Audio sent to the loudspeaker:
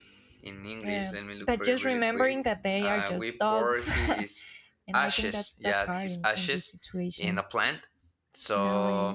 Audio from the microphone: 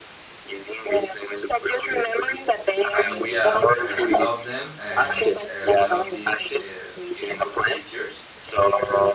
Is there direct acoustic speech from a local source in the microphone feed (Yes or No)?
Yes